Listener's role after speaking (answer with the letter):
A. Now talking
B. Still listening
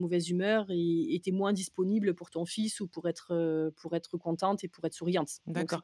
A